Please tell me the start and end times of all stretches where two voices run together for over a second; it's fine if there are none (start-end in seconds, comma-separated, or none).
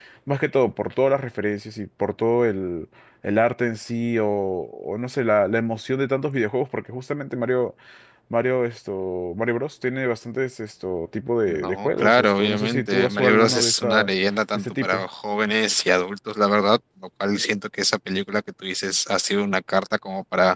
11.5-14.1